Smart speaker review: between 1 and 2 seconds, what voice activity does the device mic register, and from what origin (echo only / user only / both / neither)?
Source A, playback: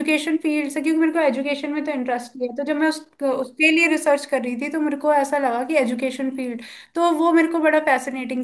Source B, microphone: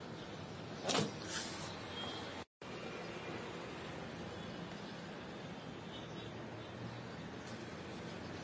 neither